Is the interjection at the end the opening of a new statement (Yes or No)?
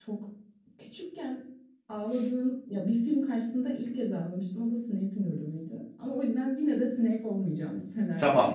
Yes